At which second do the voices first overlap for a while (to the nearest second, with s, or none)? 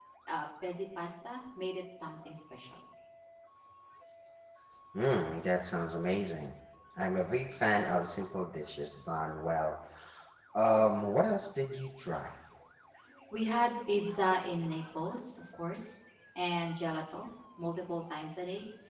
none